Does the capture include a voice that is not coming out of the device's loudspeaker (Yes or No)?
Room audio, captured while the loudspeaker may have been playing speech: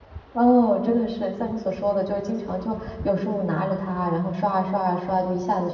Yes